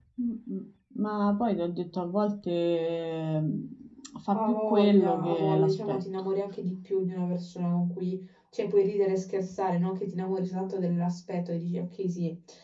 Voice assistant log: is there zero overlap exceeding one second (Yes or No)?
No